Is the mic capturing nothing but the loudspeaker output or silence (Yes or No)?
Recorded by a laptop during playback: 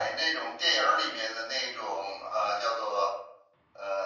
Yes